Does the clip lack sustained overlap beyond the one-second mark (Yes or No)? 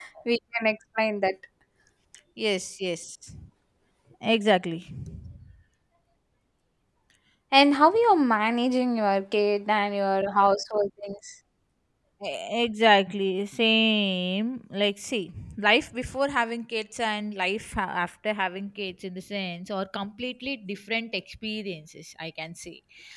Yes